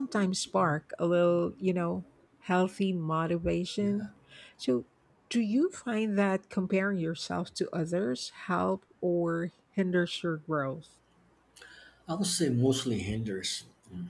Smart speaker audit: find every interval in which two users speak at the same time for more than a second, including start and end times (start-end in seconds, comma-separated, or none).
none